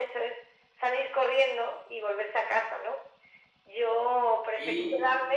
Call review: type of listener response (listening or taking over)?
listening